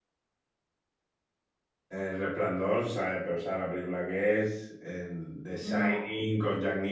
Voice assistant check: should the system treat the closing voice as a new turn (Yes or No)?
No